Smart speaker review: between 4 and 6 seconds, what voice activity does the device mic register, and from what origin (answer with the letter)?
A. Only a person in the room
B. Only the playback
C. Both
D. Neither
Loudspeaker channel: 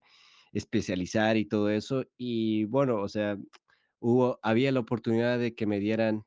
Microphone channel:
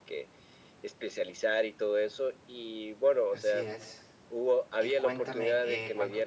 C